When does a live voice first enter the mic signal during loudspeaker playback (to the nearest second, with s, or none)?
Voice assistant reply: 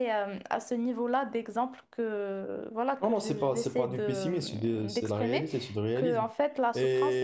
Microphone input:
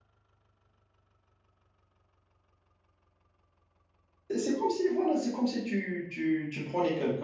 4 s